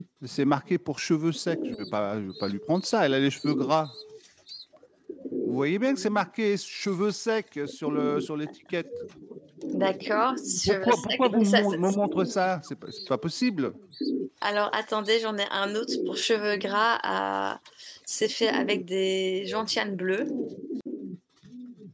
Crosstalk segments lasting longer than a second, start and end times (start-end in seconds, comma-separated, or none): 10.7-11.9